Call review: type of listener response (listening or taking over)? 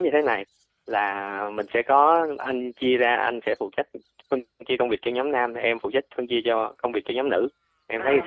taking over